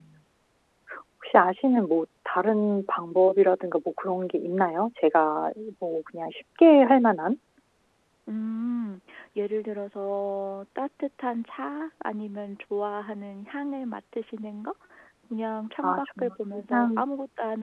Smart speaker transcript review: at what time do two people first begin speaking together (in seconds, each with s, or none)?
15.8 s